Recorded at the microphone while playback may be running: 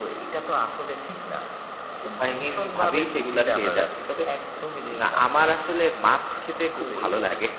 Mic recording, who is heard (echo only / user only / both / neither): both